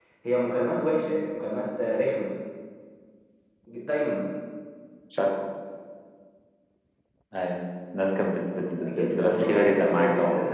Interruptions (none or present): present